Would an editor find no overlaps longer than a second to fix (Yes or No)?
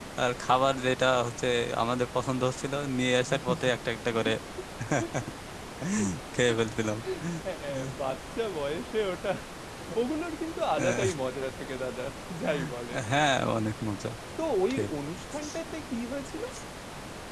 Yes